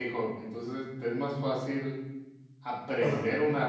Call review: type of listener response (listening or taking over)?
listening